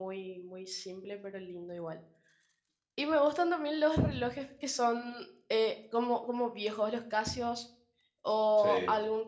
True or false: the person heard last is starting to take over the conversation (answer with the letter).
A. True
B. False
B